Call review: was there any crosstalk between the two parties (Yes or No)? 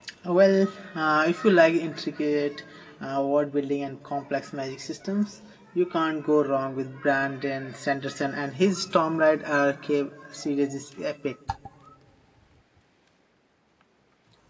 No